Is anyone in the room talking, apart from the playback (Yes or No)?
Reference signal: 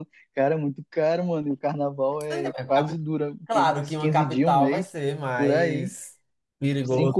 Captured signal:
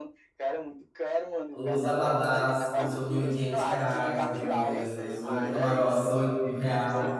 Yes